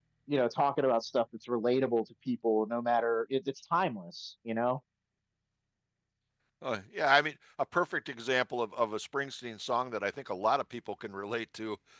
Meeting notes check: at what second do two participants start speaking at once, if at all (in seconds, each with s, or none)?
none